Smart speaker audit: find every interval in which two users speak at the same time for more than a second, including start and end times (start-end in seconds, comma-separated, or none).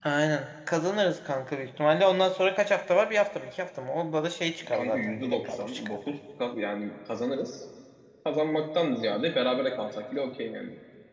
4.7-6.0